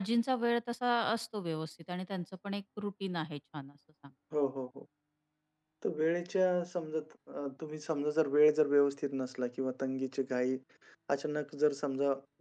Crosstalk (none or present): none